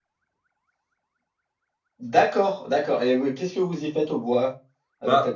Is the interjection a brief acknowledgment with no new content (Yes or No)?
No